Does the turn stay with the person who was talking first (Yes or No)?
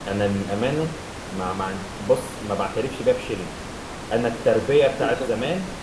Yes